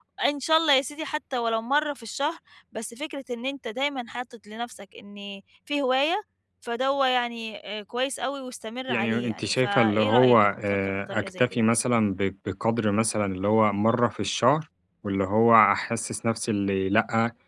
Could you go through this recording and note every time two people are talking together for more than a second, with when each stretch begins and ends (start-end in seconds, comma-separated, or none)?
8.9-11.6